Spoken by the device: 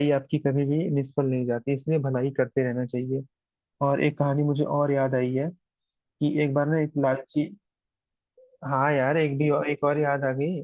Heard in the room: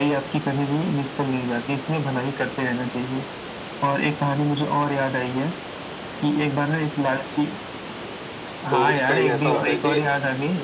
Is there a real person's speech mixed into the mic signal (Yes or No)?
Yes